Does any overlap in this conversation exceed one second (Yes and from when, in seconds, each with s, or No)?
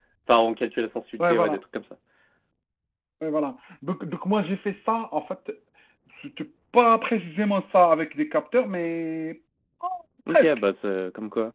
No